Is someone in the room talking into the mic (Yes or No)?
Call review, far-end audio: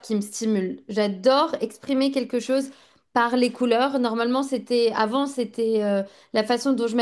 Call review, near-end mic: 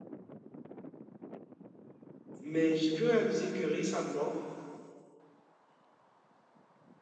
Yes